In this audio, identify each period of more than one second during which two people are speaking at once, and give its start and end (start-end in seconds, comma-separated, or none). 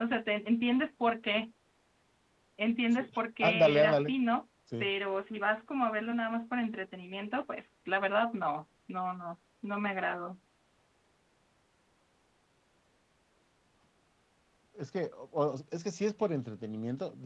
2.9-4.1